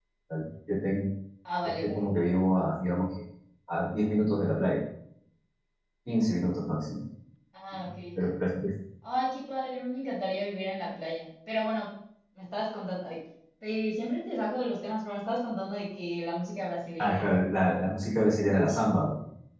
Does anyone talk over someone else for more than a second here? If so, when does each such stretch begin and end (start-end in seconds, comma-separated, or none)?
none